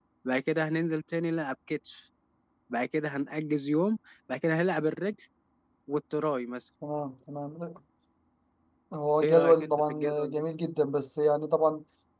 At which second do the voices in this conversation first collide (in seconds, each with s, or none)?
9.2 s